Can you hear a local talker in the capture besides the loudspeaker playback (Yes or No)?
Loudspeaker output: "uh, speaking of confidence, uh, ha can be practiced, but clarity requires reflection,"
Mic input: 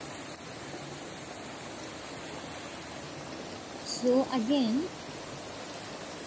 Yes